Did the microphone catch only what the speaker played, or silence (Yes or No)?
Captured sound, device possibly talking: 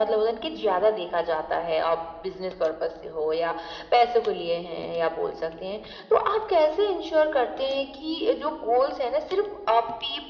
Yes